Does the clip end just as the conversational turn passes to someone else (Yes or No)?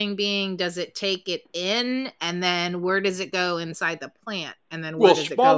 Yes